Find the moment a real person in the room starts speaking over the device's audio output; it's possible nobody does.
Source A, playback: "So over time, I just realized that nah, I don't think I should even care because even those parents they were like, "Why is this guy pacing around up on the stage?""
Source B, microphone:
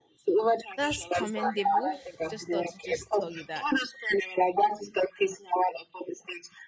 0.7 s

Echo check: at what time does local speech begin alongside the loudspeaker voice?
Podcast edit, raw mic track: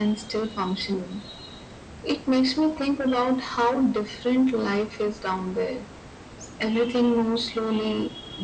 none

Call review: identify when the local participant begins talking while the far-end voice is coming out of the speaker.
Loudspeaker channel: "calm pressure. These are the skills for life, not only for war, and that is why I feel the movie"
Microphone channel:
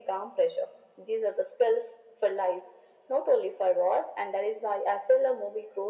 none

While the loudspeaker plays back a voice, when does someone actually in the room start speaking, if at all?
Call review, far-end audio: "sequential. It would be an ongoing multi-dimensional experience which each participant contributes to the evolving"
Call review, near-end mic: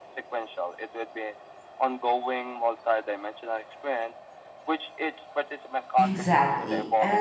6.0 s

